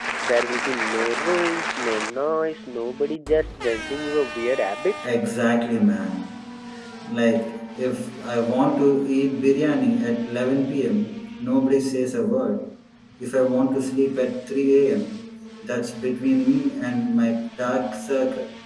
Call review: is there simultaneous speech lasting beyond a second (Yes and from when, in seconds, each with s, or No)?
No